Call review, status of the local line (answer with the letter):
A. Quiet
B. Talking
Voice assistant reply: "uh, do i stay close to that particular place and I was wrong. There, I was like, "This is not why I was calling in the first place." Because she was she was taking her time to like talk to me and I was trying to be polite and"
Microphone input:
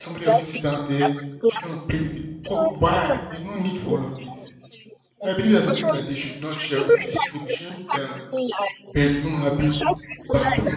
B